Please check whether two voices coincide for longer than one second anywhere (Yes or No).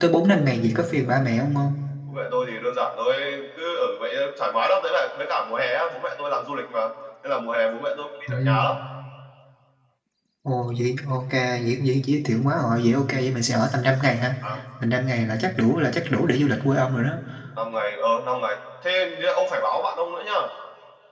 No